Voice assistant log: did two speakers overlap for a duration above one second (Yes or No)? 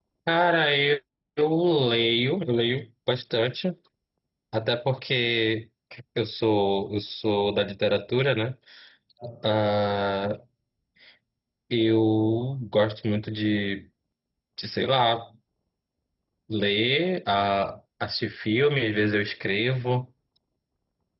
No